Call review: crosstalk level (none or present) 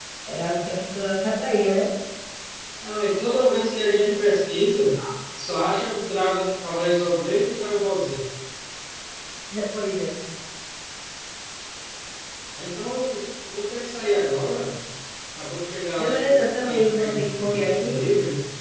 present